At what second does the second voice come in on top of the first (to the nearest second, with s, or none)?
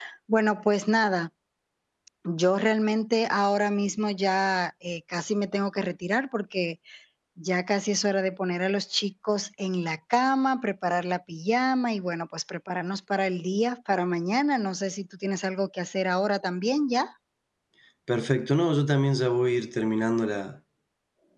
none